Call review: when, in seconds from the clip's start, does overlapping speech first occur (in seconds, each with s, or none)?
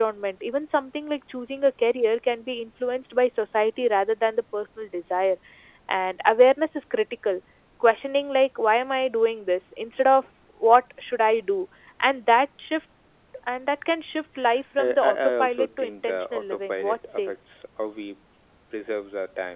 14.8 s